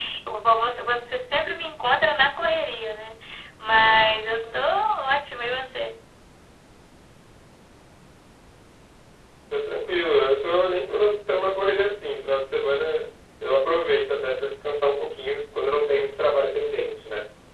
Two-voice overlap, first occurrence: none

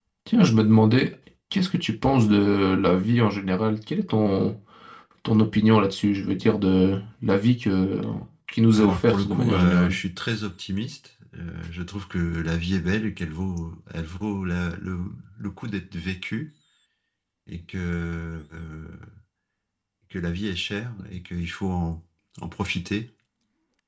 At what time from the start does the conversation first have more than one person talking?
8.7 s

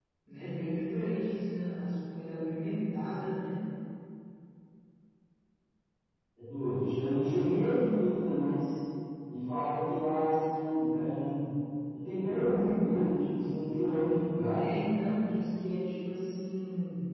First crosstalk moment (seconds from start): none

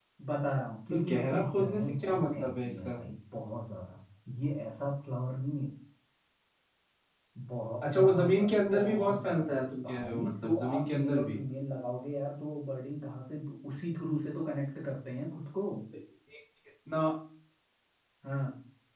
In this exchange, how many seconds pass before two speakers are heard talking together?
0.9 s

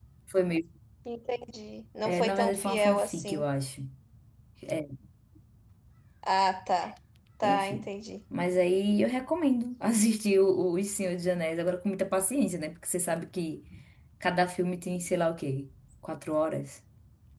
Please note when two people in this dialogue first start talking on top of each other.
2.0 s

